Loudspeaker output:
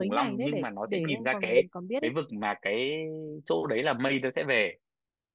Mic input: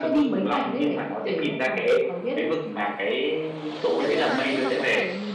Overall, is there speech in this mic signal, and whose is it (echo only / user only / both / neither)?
both